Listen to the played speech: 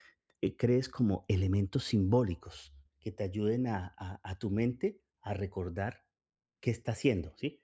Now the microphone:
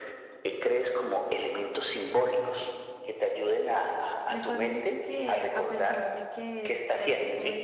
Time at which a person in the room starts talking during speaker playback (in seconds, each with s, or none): 4.3 s